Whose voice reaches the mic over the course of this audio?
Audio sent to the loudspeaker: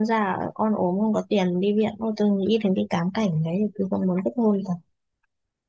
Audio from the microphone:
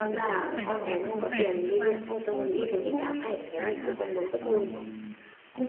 both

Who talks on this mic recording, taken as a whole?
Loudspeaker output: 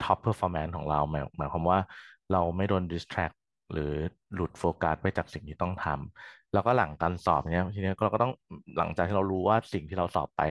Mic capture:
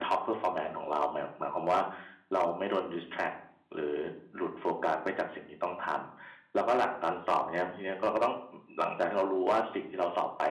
echo only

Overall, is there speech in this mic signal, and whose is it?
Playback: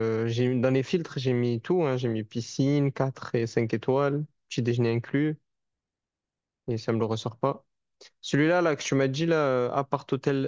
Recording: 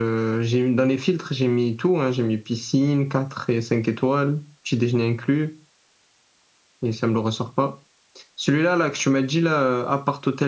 echo only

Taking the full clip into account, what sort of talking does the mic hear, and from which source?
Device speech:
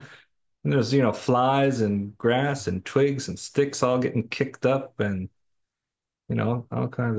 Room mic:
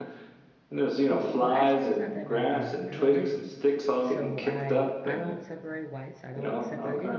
both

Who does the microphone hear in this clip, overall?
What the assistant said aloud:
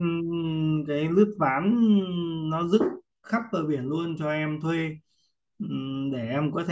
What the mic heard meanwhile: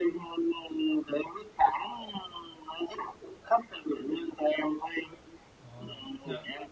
both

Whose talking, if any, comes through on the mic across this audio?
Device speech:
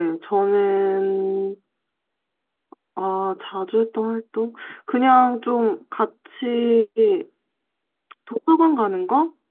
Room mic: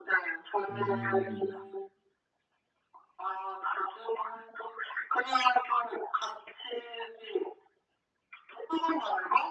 both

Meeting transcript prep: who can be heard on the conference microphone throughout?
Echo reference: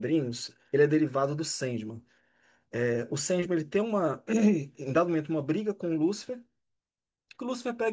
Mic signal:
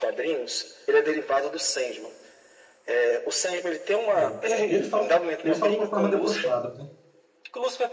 both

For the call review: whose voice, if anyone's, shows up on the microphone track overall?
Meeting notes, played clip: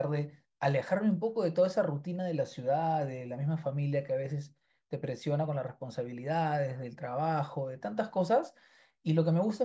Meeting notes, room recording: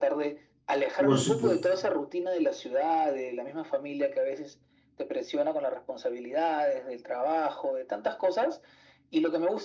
both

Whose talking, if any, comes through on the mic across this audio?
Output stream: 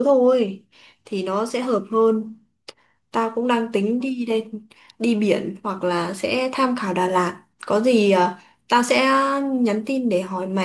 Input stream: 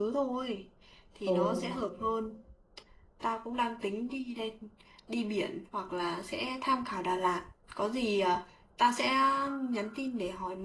both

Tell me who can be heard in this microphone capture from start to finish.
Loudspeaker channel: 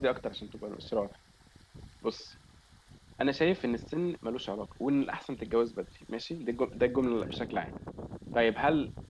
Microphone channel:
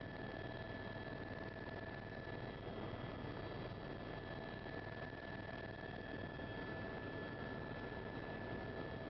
neither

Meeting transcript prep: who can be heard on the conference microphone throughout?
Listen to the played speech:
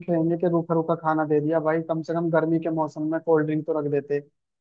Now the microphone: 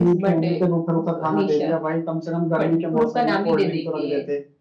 both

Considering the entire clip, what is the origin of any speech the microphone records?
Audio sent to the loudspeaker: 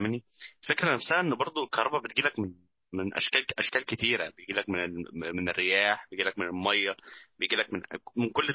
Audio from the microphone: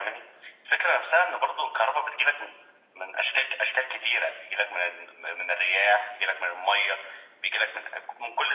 echo only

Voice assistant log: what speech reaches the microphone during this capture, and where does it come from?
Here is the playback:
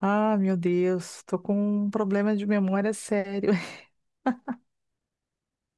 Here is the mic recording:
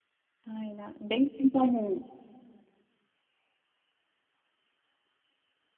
user only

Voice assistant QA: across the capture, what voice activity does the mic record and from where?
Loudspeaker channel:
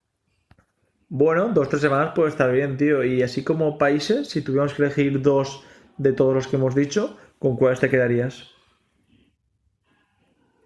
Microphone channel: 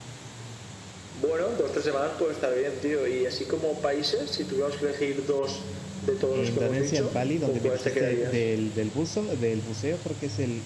both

